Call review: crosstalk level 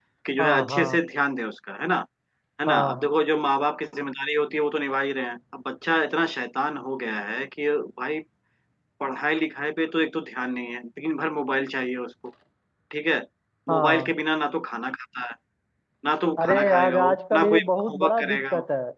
present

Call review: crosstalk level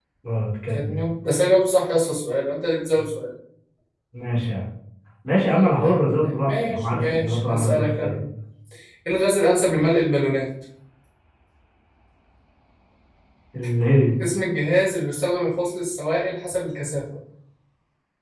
present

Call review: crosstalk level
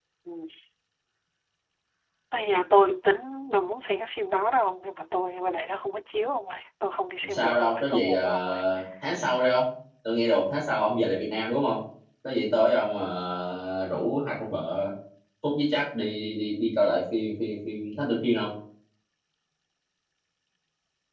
present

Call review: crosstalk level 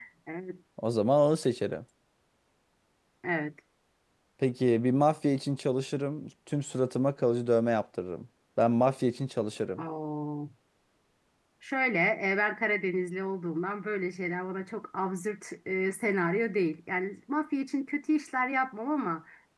none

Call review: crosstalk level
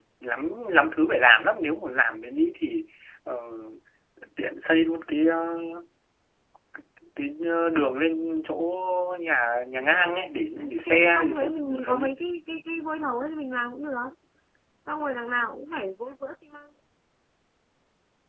present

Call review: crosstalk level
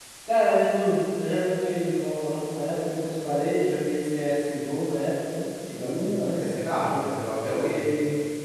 present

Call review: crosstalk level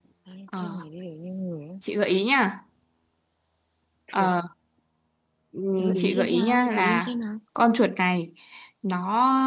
present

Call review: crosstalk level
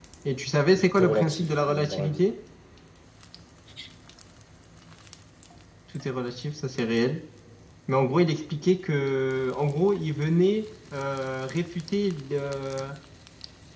present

